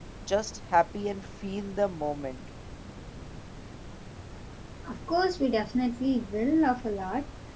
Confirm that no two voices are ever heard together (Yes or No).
Yes